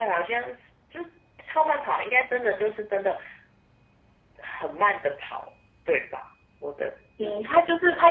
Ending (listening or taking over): taking over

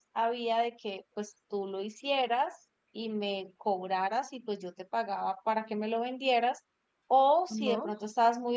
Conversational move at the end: listening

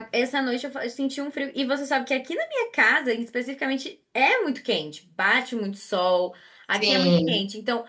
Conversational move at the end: listening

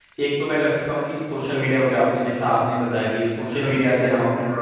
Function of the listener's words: listening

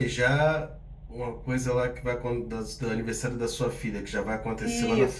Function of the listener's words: taking over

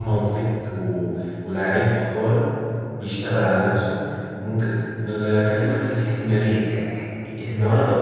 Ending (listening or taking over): listening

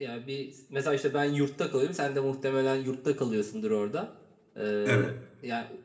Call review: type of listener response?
listening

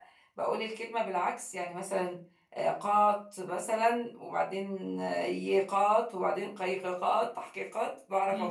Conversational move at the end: taking over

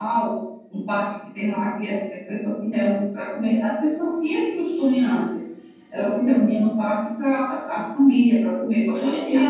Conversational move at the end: taking over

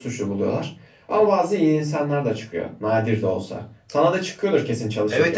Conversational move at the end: taking over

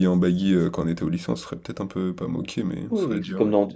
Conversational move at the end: taking over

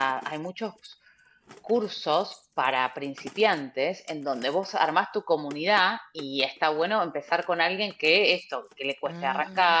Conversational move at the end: listening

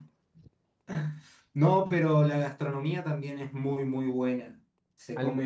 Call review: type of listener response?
listening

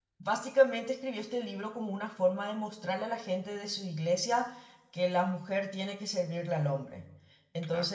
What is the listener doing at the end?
listening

